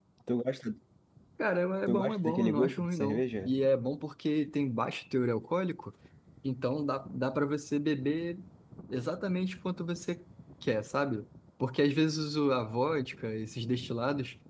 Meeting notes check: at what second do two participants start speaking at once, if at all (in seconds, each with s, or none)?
1.9 s